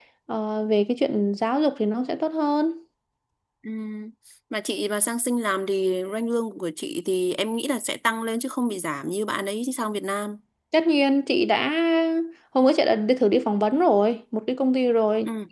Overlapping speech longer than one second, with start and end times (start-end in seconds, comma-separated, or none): none